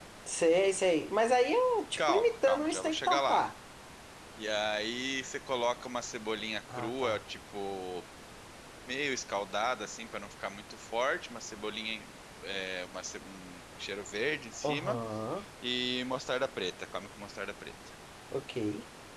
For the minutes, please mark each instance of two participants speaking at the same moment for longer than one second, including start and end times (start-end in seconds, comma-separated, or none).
2.0-3.5